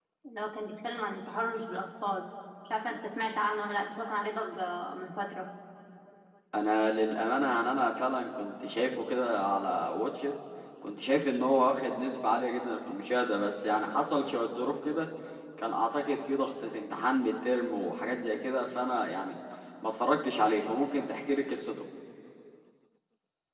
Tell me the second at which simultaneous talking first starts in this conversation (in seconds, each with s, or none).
none